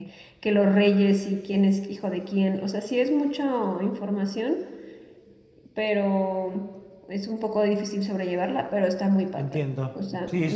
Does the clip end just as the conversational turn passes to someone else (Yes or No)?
Yes